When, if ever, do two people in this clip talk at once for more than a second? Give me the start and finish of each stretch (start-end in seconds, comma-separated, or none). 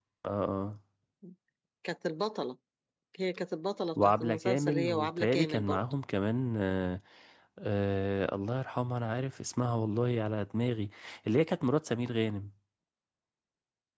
4.0-5.8